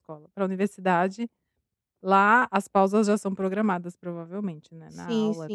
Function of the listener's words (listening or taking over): taking over